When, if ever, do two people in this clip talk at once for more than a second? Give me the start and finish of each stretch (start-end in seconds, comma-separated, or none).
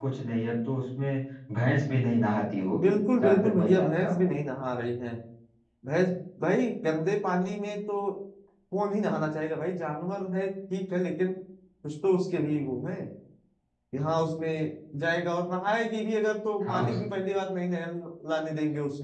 2.8-4.2